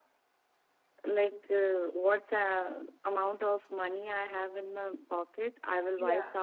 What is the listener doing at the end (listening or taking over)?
listening